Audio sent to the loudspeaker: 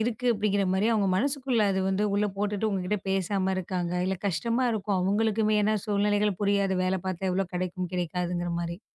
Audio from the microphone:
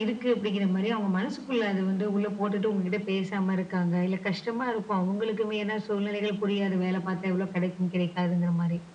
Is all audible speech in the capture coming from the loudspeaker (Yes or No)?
Yes